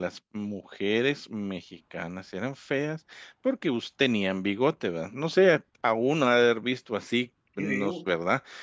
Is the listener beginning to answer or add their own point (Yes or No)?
No